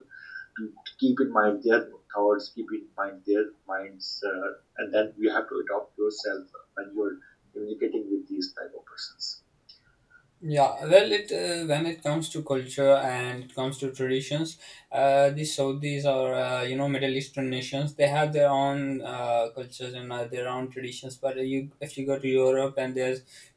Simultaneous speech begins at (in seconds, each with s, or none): none